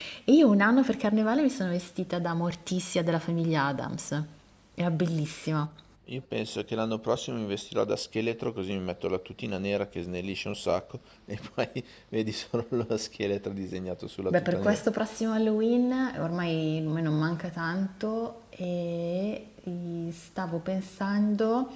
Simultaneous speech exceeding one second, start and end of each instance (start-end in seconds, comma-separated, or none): none